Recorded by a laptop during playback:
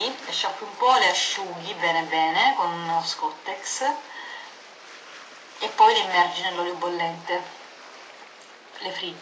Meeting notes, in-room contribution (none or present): none